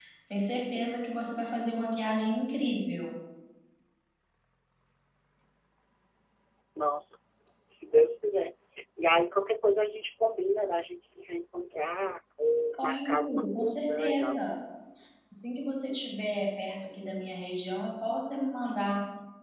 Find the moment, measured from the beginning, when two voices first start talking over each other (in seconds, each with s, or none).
12.7 s